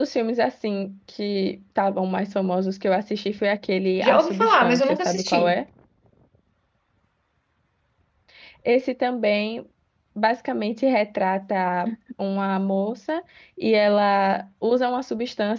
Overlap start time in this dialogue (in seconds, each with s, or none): 4.0 s